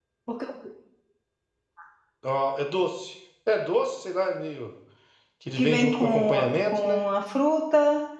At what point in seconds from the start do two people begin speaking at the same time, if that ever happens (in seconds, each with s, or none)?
5.6 s